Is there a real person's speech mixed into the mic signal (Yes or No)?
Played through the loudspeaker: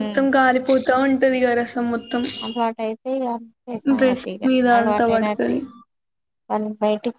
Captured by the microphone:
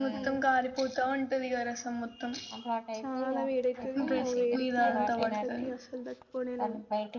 Yes